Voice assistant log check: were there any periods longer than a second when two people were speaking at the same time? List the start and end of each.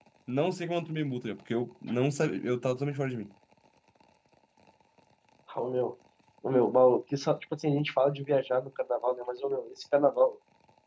none

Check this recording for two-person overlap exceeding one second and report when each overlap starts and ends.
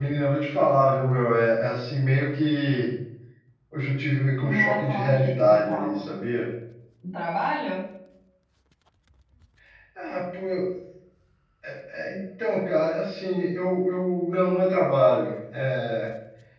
4.4-6.1

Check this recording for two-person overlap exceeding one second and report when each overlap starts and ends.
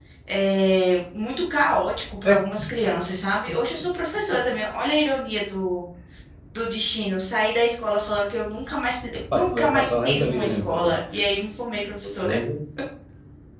9.3-10.9

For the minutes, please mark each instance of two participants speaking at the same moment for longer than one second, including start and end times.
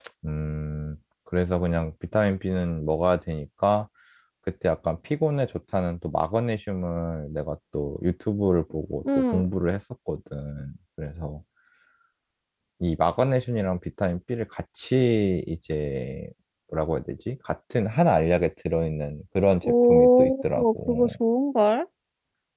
19.6-21.1

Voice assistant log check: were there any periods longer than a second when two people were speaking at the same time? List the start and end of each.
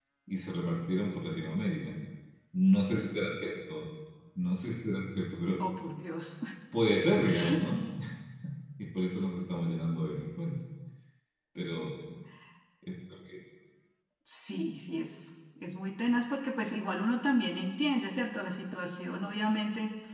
none

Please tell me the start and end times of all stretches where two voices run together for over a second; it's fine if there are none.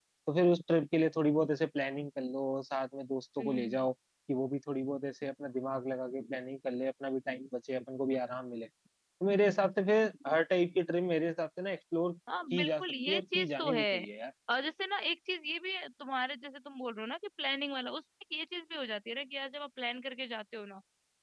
12.5-13.8

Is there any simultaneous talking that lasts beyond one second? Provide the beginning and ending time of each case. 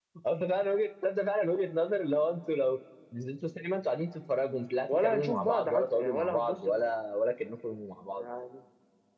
4.9-6.9

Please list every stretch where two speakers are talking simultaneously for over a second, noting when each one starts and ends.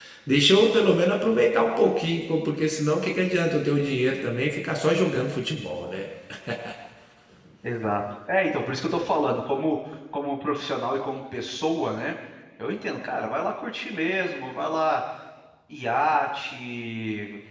none

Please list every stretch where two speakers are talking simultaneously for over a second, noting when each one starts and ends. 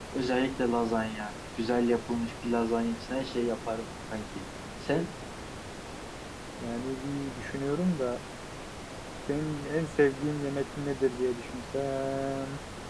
none

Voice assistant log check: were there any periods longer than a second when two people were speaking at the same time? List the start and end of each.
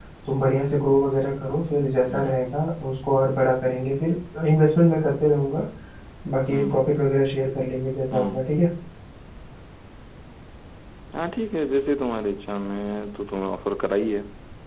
none

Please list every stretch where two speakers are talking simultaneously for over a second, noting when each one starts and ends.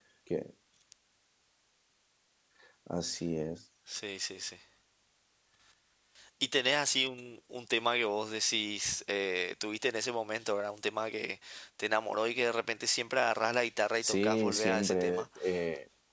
14.0-15.2

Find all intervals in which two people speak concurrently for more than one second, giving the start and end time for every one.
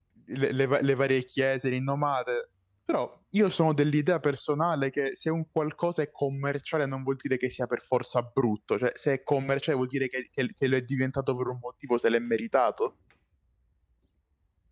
none

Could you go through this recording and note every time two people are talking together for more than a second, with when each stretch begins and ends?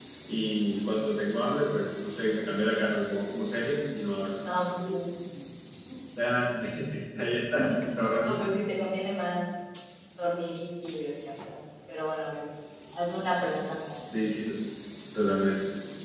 none

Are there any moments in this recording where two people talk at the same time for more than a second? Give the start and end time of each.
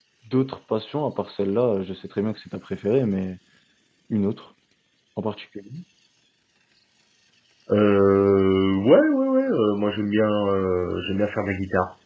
none

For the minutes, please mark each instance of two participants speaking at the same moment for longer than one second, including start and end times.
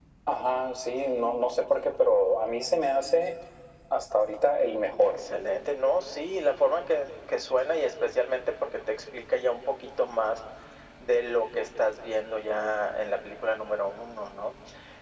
none

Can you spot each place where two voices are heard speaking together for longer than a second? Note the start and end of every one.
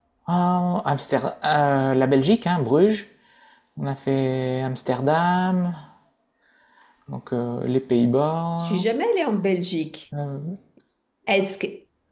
none

